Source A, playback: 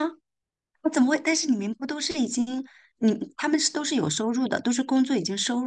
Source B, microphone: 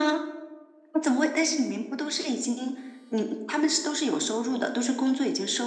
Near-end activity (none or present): none